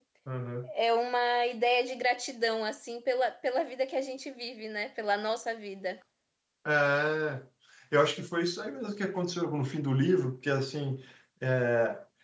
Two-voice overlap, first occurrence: none

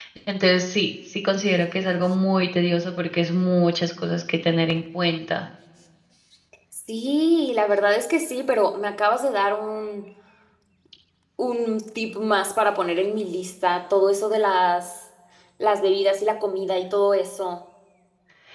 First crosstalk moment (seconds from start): none

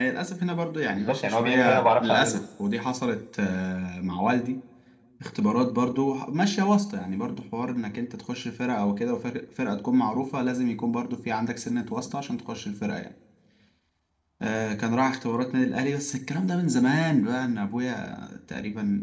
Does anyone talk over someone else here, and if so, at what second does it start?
1 s

